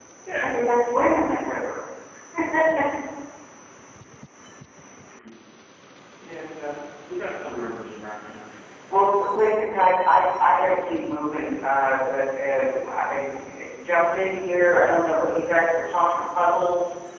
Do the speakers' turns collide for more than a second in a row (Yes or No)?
No